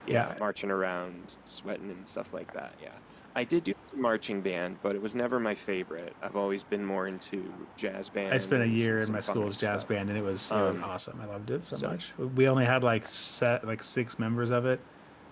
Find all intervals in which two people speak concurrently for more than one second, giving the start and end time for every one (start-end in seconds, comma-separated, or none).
8.3-9.9